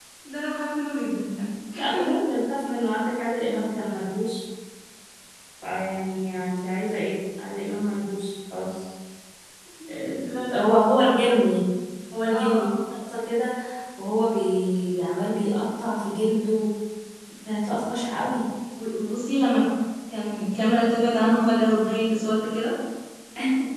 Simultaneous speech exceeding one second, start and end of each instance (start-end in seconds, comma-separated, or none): 9.9-11.3